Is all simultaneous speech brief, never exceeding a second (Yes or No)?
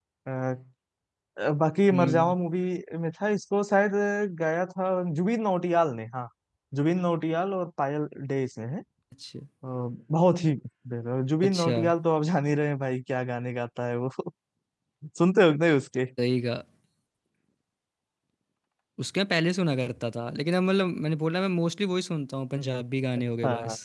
Yes